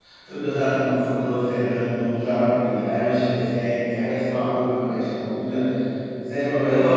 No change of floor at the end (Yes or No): No